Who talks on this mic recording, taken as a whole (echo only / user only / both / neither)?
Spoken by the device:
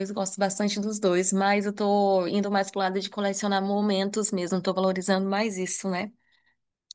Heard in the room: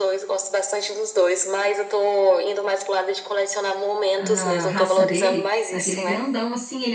both